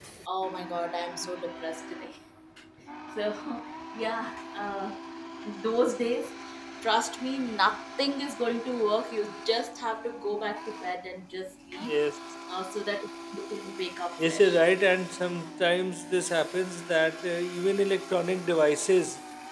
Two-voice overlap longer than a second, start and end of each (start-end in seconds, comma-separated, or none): none